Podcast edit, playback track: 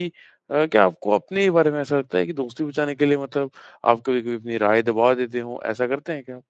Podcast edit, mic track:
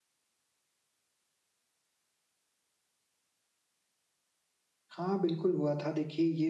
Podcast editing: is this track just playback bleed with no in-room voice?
No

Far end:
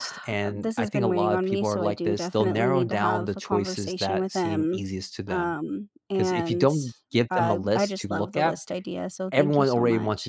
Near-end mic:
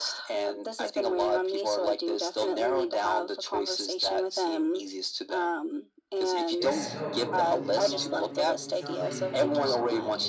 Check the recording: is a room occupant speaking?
Yes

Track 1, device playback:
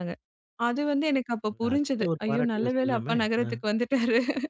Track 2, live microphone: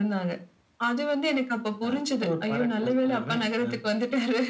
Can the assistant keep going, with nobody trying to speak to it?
Yes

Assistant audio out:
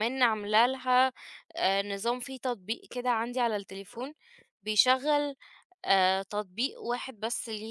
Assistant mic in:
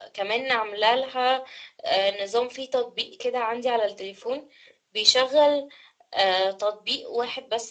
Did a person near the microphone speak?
No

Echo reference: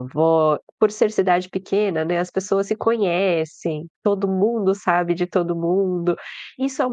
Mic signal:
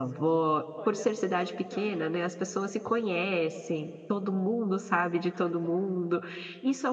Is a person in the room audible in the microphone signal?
Yes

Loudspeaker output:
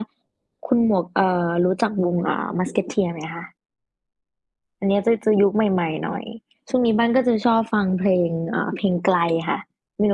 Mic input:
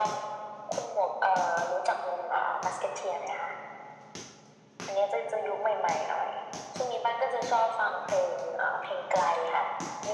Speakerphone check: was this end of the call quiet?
Yes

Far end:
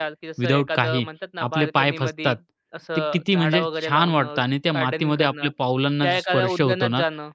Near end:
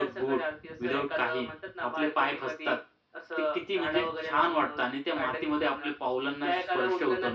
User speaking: No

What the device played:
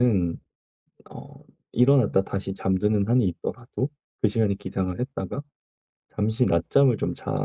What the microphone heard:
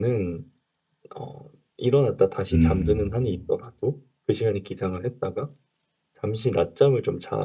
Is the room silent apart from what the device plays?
No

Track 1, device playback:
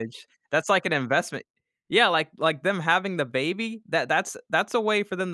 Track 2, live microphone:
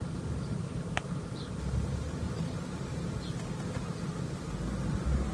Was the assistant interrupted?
No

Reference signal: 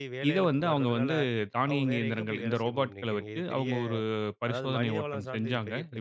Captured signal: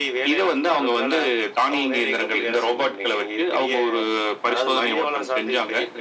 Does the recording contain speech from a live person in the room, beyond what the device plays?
No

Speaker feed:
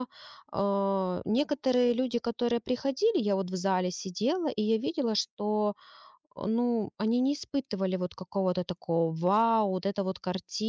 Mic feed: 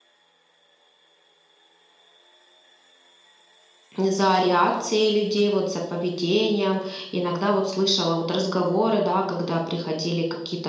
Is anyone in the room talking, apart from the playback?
Yes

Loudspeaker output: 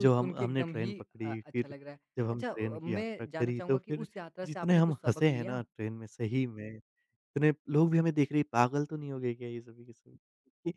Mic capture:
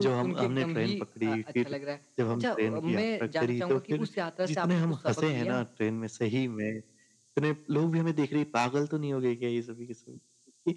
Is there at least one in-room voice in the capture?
No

